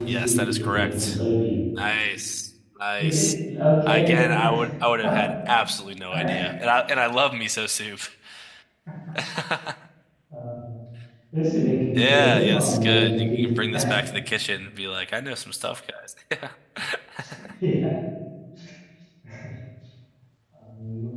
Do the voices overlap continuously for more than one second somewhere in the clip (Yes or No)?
Yes